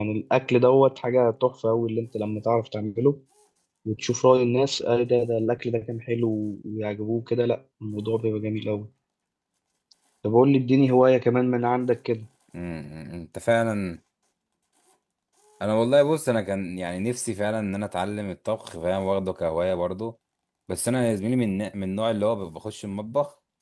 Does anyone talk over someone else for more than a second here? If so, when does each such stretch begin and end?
none

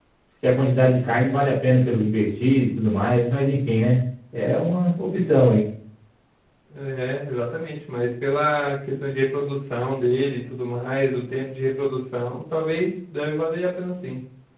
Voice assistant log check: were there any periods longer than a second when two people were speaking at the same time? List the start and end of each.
none

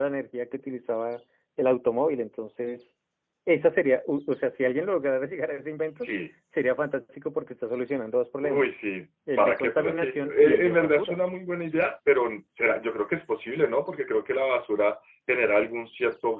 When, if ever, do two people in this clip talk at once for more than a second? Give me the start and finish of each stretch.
9.4-11.2

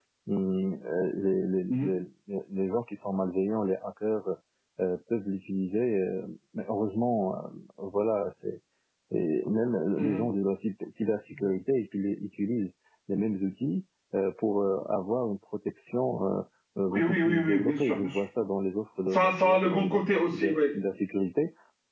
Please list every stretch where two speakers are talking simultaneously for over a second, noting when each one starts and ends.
16.9-18.2, 19.1-20.7

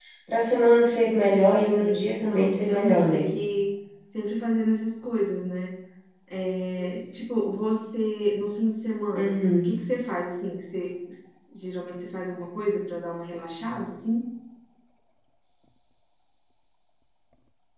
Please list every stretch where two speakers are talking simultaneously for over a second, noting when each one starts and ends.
1.3-3.2

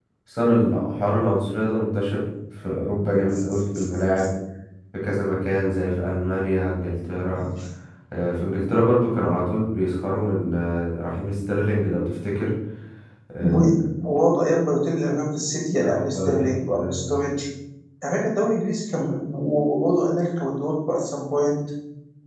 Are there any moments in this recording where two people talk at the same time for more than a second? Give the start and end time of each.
15.8-17.3

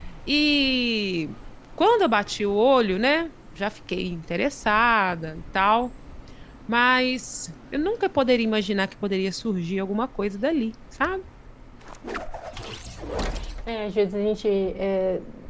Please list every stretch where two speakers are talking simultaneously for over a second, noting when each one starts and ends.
none

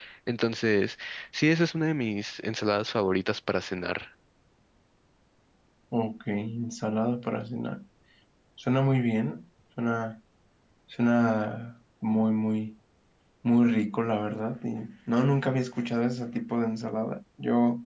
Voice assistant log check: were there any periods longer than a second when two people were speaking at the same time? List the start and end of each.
none

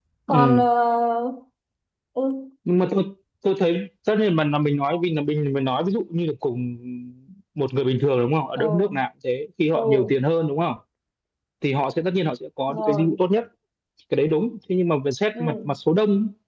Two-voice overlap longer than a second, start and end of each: none

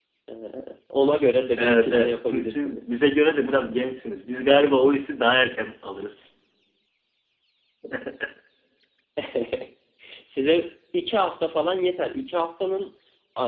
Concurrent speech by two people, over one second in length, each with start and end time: 1.6-2.9

